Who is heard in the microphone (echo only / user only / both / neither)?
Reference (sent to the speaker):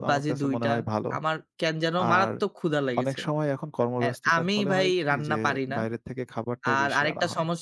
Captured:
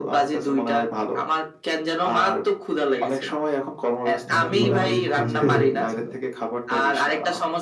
both